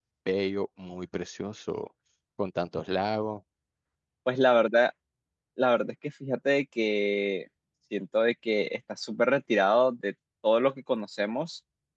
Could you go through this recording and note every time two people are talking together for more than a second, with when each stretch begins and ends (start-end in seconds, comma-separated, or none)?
none